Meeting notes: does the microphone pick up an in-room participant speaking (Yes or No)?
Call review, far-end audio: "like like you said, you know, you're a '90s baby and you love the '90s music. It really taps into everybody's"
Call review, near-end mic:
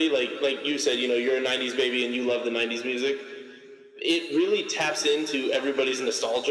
No